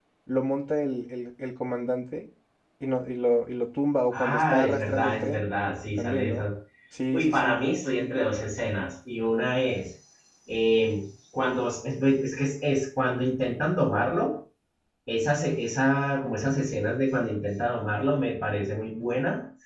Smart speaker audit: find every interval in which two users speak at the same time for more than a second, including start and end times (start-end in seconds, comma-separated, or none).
4.1-5.4